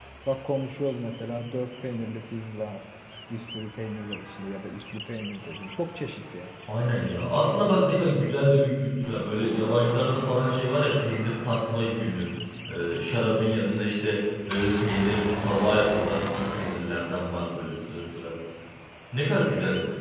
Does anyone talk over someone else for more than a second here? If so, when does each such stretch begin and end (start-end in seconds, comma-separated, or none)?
none